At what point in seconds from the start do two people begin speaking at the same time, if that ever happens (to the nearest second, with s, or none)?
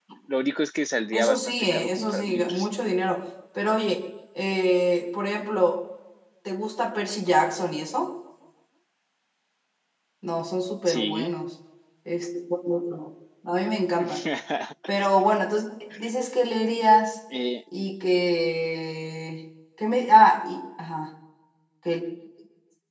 1 s